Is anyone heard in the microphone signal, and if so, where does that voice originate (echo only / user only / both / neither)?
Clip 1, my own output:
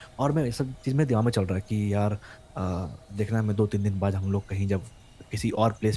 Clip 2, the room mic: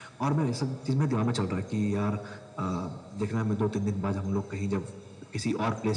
echo only